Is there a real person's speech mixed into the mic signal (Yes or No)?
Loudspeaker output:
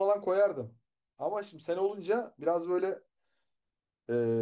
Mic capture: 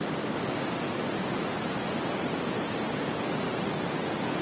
No